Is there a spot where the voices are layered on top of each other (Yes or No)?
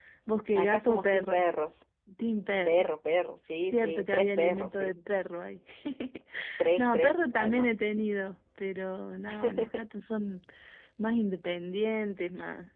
Yes